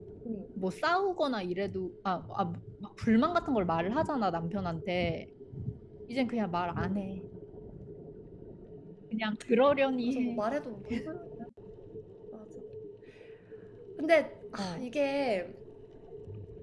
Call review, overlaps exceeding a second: none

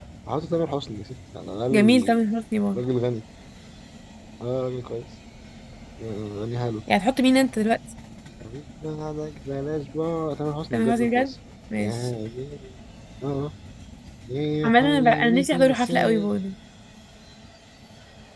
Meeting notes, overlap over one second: present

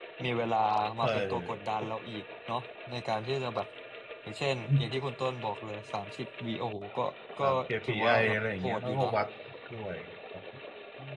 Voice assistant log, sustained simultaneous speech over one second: present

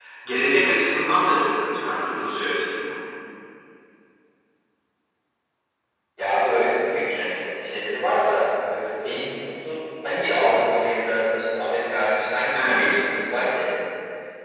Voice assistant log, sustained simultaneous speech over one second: none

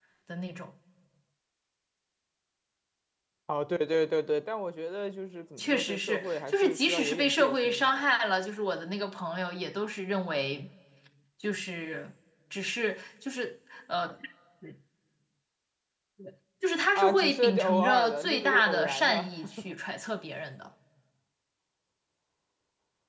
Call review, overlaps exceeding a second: present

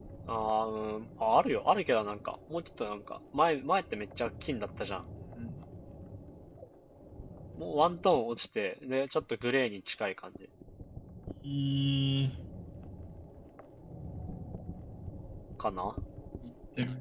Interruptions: none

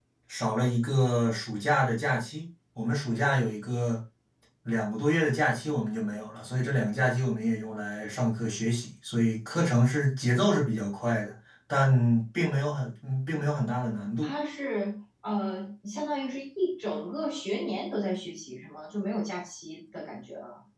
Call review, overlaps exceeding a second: none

